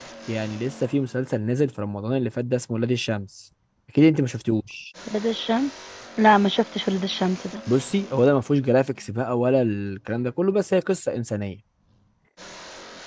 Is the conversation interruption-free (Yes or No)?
Yes